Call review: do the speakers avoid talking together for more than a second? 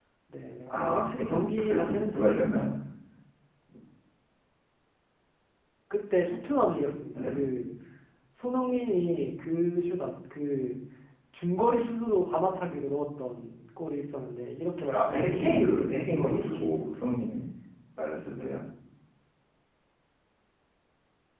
No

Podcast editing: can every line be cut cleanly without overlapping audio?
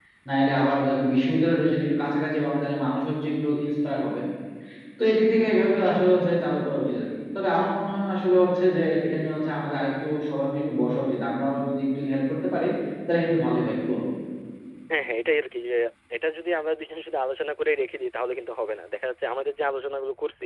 Yes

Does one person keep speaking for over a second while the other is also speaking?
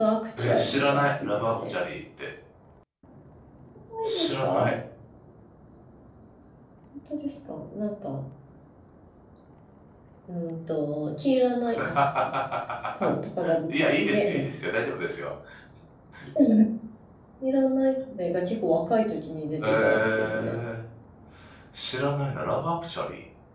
Yes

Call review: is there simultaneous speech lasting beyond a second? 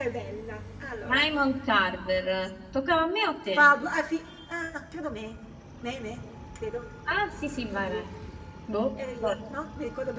No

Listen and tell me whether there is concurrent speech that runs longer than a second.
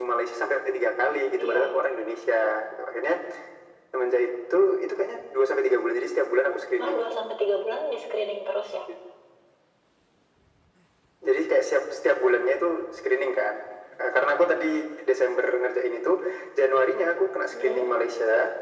No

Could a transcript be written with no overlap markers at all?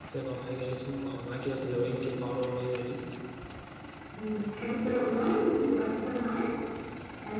Yes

